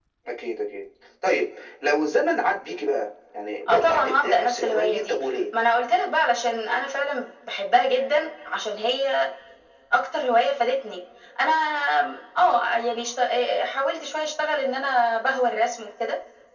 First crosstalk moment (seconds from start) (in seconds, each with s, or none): 3.7 s